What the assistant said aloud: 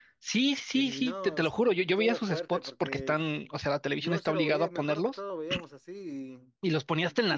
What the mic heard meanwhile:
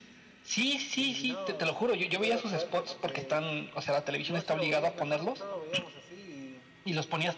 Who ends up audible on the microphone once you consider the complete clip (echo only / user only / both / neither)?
echo only